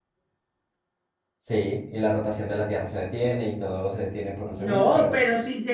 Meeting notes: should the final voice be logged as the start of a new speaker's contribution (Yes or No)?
Yes